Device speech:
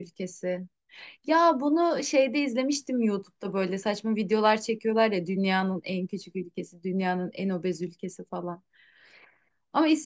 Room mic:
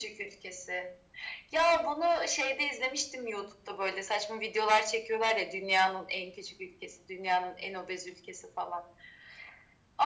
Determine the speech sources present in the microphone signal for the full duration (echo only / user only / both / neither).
echo only